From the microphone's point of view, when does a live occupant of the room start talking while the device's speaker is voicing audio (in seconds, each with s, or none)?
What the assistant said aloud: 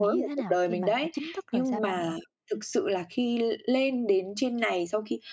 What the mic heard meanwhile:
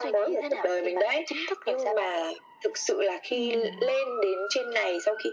3.3 s